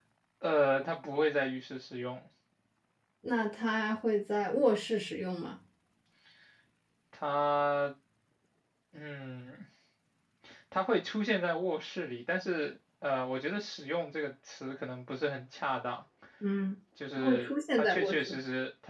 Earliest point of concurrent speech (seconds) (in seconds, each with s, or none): 17.2 s